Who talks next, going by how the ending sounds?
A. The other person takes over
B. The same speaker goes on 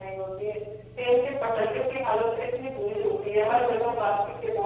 B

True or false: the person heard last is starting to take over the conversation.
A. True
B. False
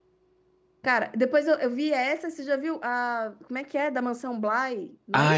A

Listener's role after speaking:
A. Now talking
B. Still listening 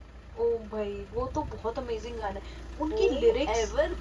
A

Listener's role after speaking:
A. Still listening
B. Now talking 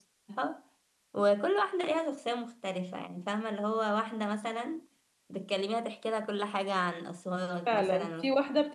B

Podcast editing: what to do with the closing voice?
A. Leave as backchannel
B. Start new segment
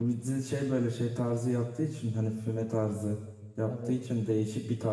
A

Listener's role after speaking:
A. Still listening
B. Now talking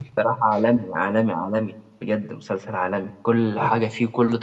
A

